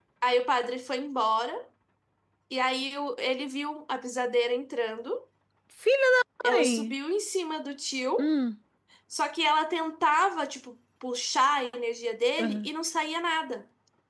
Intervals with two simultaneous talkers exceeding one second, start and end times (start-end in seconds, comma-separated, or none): none